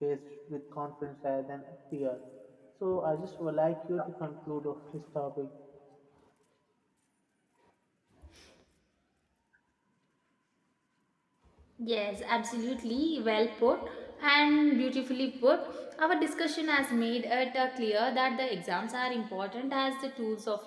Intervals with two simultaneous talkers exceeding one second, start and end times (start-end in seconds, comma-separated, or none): none